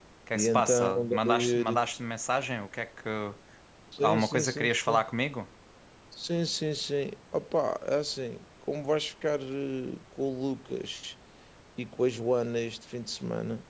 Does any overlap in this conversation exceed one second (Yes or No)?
Yes